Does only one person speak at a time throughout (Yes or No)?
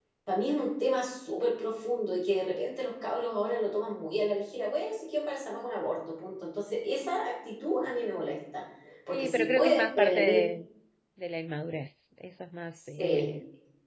No